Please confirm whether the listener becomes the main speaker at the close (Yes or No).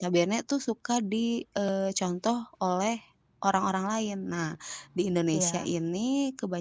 No